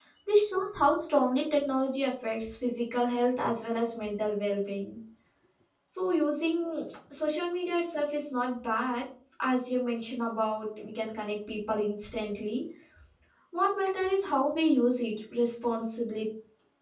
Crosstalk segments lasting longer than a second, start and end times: none

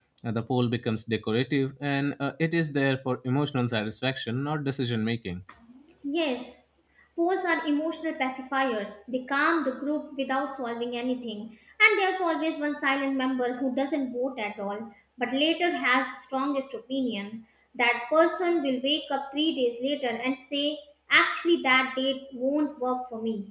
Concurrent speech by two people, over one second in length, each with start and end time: none

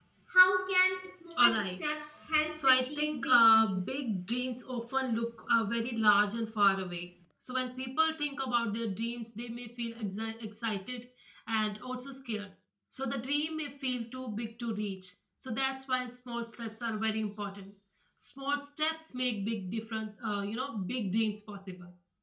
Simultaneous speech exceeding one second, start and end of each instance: 2.5-3.9

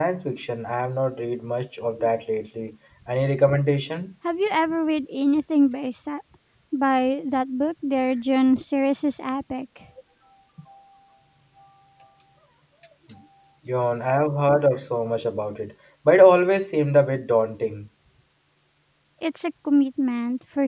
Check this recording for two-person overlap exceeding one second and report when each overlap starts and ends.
none

